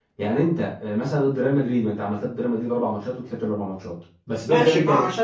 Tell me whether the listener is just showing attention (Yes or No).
No